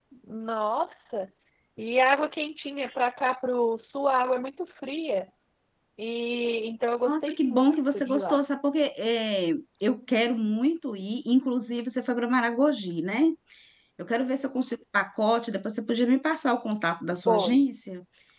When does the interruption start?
7.0 s

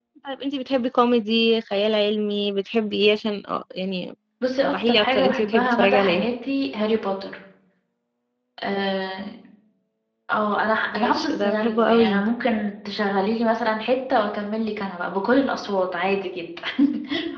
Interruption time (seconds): 4.6 s

